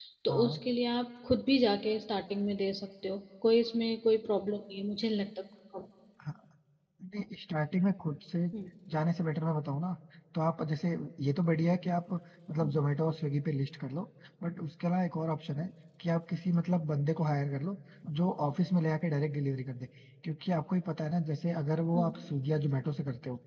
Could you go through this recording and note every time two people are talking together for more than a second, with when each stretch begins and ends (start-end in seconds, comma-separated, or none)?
none